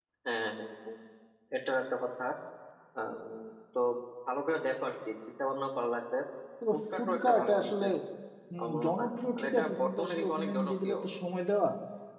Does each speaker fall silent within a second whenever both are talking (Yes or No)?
No